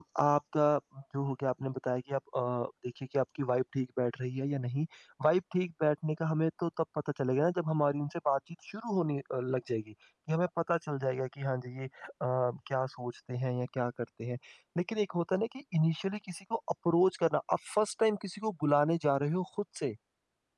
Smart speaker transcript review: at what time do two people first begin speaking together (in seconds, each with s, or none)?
none